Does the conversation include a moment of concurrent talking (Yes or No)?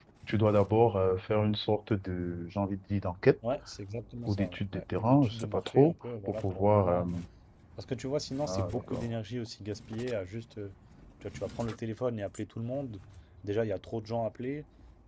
Yes